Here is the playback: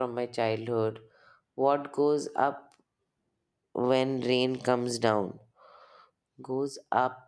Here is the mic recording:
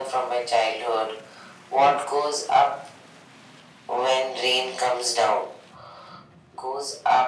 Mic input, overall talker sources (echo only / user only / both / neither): both